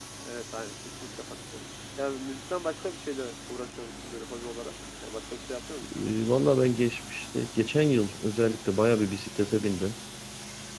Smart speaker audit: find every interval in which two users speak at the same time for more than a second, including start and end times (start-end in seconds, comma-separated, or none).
none